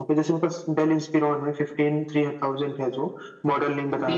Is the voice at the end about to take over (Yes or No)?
Yes